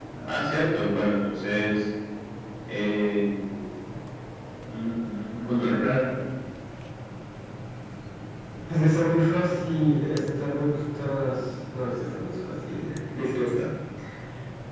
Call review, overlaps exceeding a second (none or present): none